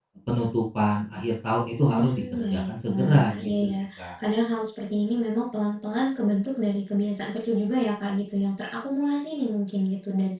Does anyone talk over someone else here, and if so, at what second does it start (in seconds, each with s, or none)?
1.8 s